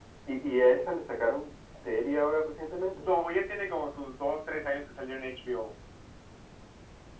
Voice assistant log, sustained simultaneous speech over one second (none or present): none